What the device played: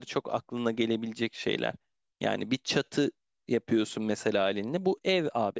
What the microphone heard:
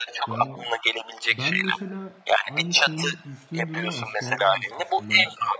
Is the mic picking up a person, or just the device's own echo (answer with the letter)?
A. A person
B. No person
A